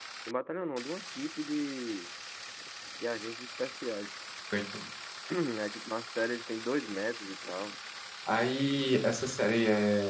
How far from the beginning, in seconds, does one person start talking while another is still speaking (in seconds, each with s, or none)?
none